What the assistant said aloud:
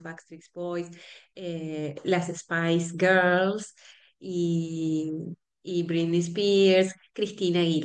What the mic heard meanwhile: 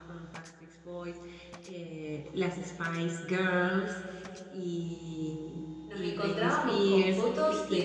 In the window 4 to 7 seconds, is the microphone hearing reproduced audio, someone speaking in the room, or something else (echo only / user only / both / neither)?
both